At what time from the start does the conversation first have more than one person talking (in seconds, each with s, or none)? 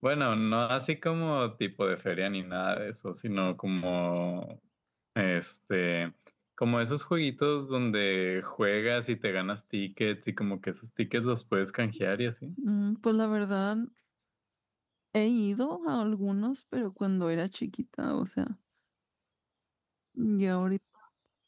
none